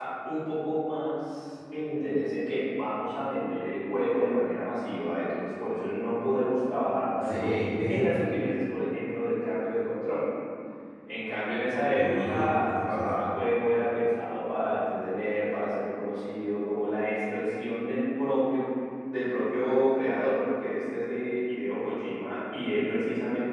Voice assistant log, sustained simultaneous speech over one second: present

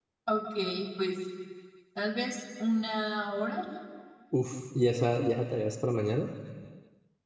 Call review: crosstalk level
none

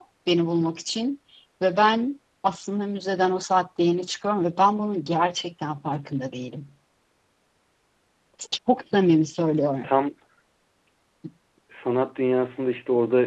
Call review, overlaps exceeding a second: none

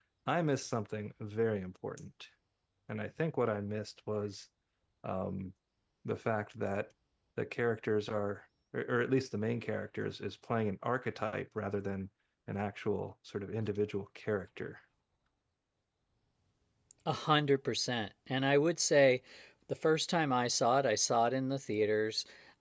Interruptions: none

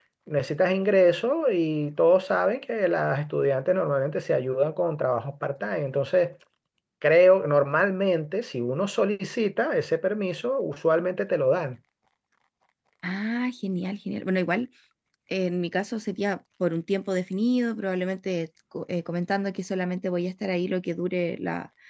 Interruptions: none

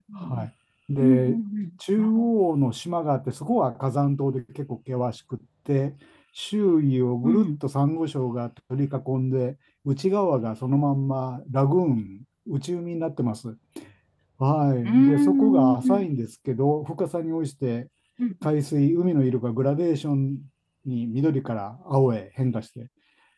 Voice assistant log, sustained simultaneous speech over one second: present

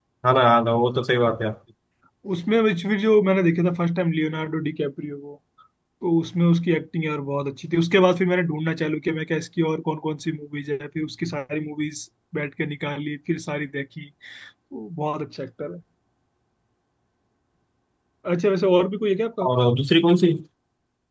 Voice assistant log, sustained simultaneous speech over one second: none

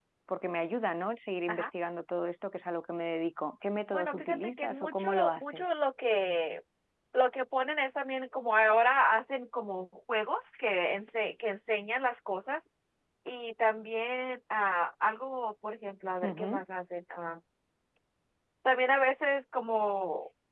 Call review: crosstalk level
present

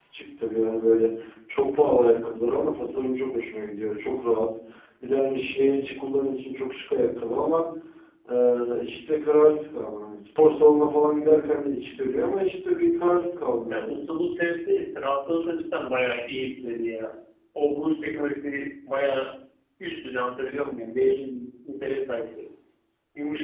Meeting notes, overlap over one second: none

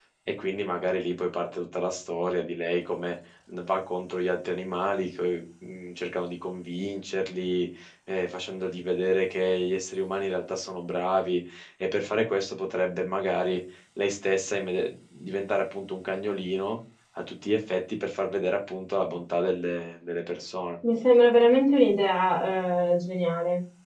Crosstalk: none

